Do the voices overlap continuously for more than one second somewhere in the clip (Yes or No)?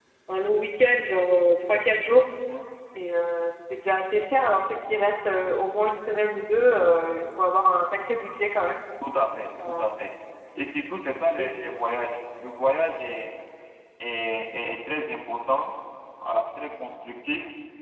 No